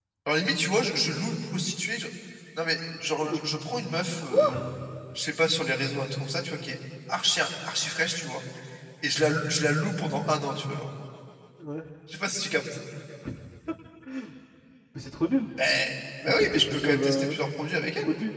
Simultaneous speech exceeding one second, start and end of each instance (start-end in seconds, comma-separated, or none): 16.3-17.5